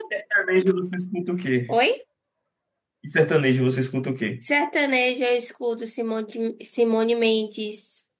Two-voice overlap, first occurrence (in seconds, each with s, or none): none